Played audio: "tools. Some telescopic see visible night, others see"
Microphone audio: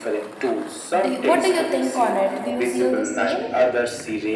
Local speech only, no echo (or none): Do you- what do you think on it? Do you feel the same?